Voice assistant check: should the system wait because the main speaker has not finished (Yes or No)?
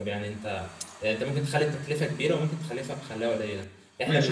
No